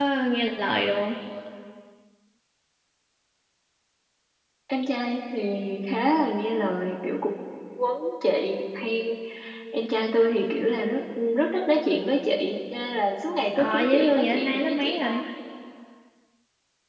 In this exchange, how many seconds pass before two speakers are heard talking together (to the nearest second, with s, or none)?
14 s